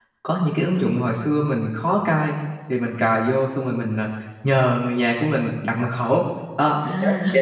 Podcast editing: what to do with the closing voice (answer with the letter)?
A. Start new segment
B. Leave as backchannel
B